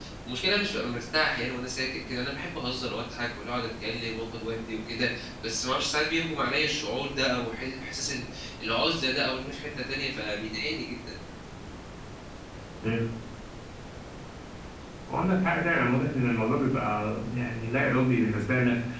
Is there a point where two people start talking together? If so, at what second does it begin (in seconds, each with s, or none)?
none